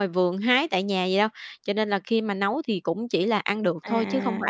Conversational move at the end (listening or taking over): taking over